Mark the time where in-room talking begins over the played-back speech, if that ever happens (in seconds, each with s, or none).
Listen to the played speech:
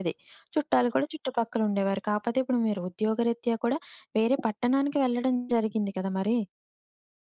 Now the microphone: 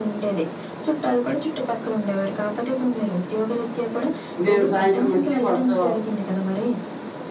4.4 s